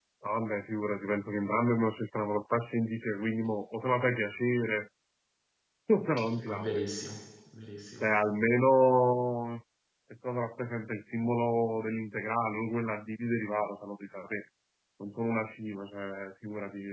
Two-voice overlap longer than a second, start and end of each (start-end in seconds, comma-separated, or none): none